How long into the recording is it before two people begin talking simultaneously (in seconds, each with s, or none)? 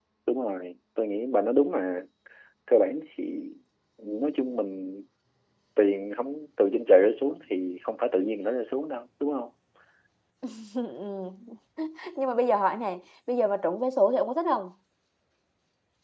none